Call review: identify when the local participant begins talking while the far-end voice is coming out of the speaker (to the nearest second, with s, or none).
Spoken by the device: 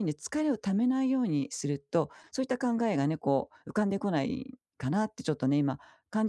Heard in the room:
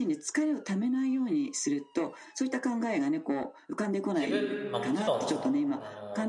4 s